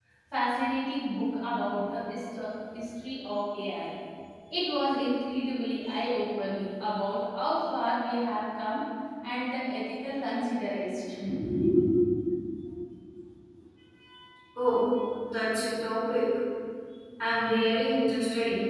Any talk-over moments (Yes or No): No